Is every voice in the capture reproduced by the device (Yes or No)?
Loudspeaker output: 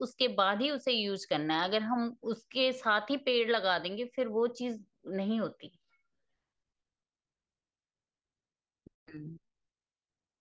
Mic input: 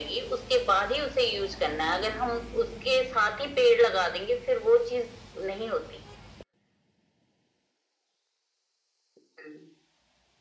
Yes